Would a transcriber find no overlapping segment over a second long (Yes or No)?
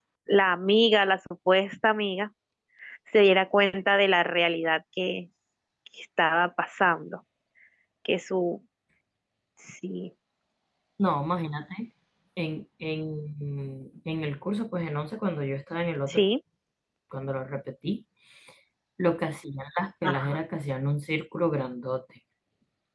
Yes